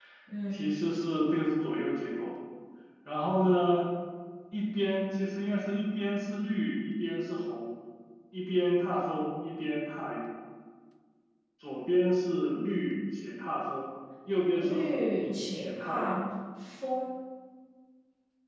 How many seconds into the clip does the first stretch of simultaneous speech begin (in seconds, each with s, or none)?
14.6 s